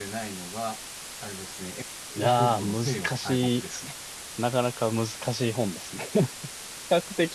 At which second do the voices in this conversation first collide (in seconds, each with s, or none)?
2.2 s